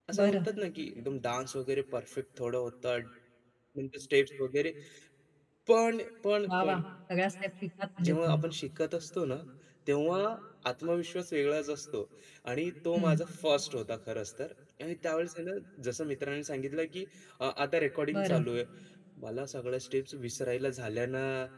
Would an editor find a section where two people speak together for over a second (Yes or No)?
No